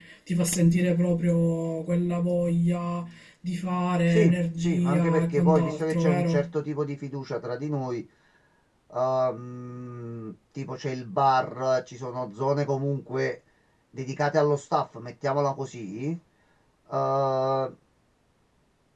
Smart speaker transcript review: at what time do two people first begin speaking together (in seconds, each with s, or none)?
4.1 s